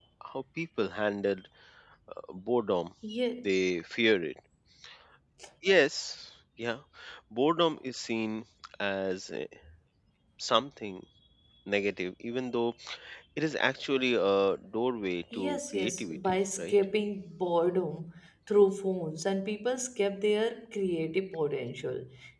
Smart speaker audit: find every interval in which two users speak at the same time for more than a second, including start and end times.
15.3-16.7

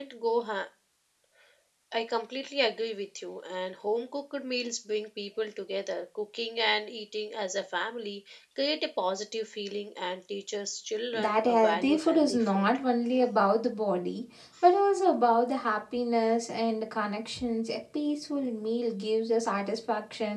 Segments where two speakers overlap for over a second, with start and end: 11.1-12.7

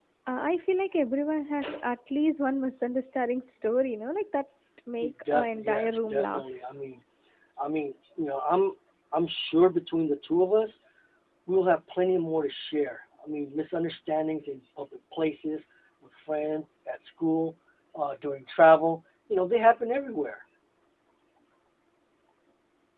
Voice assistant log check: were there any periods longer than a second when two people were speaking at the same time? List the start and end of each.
5.0-6.4

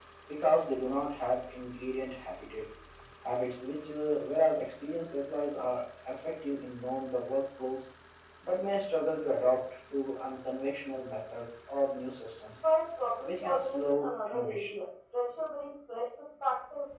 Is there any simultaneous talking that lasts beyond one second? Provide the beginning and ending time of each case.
13.2-14.7

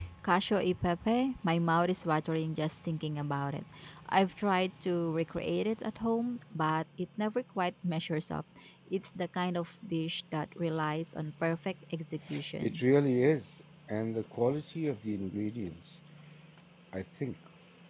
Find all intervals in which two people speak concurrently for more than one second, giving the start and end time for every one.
none

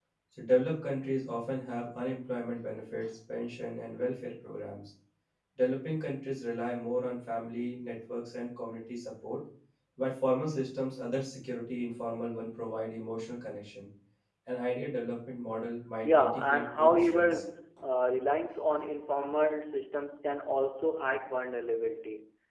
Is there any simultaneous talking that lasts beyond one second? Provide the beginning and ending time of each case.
16.0-17.4

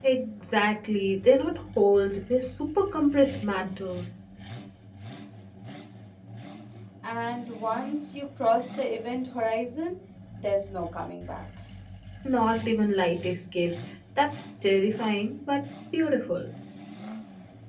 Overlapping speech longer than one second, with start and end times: none

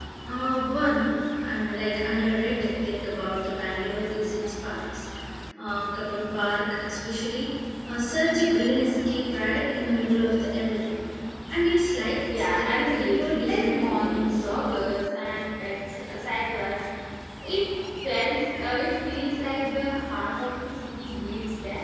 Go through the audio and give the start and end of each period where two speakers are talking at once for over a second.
12.3-14.5

